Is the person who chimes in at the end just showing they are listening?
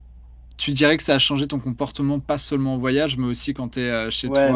No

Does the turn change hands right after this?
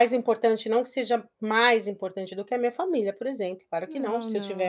No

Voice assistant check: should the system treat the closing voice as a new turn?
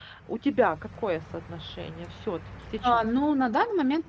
Yes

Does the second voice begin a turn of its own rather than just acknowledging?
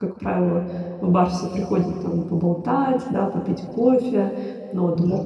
No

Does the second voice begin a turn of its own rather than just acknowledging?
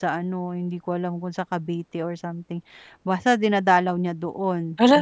Yes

